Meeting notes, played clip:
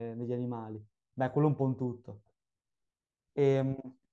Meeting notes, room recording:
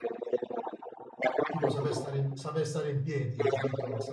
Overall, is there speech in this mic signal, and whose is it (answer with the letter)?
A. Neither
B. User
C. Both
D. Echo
C